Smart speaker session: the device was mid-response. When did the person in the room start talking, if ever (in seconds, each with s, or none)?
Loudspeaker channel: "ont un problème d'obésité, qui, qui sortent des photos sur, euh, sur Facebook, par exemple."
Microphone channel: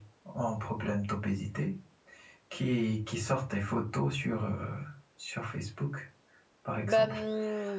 6.9 s